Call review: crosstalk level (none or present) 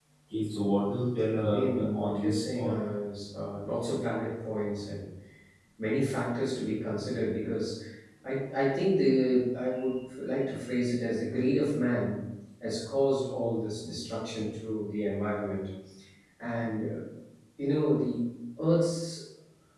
present